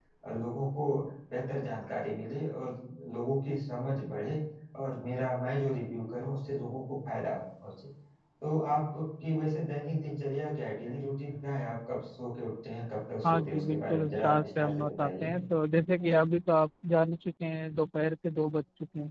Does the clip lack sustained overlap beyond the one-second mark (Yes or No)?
No